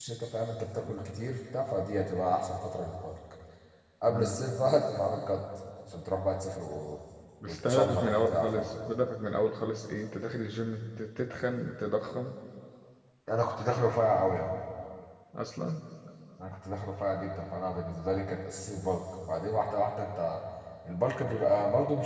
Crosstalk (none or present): present